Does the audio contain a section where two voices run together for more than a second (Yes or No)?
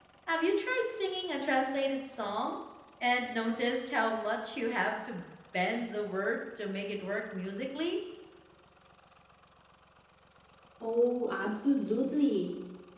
No